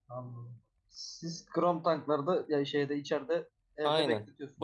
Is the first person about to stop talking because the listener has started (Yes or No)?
Yes